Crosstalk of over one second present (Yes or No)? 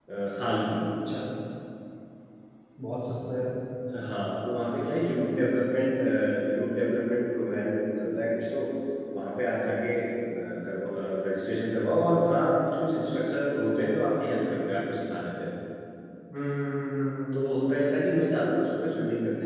No